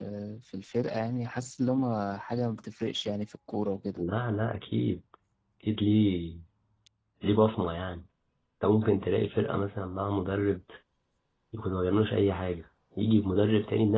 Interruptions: none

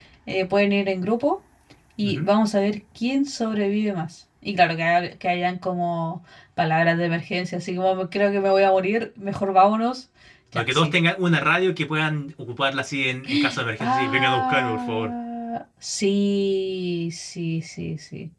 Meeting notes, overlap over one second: present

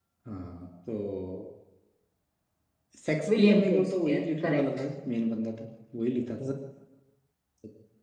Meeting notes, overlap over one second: present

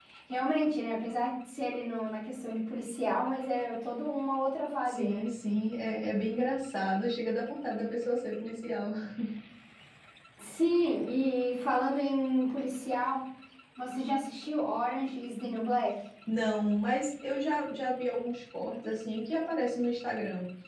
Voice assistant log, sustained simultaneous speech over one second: none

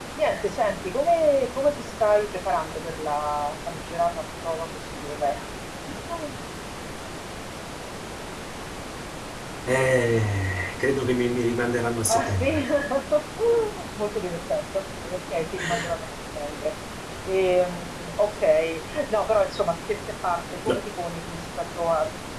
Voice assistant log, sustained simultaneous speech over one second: none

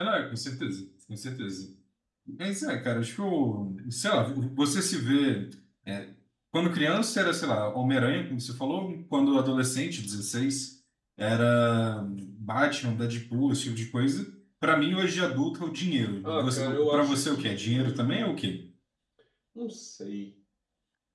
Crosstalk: present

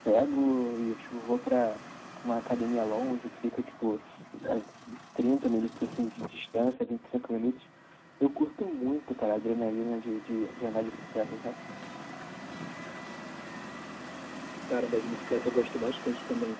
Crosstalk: none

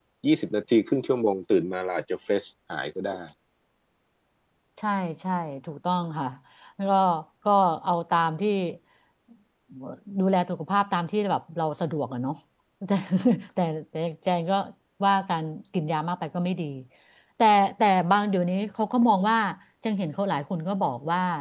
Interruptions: none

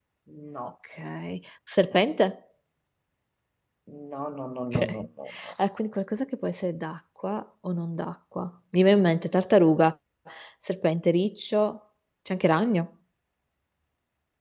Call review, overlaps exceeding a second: none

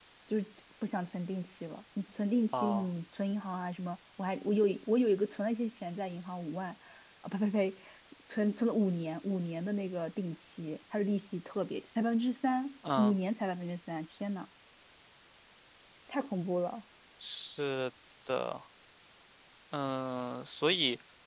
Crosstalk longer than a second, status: none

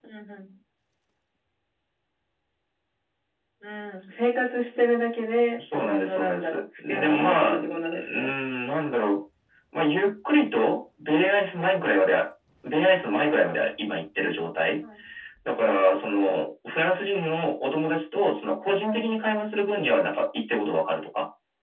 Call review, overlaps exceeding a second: present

